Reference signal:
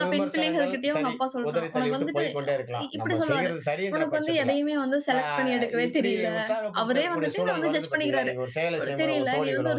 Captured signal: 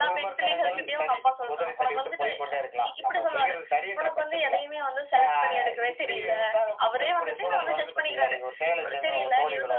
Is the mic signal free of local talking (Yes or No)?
No